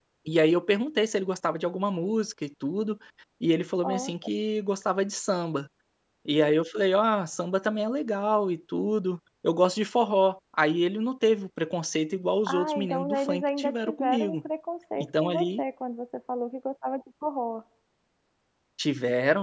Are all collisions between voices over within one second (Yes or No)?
No